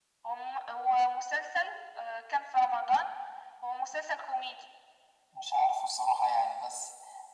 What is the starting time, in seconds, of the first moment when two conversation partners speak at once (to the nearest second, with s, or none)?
none